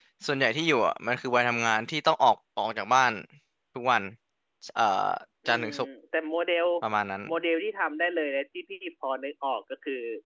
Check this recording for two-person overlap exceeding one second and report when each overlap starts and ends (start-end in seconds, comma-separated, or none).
none